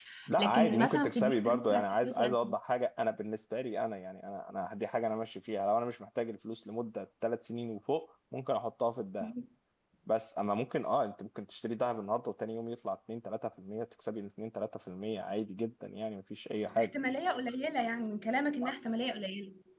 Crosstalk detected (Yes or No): Yes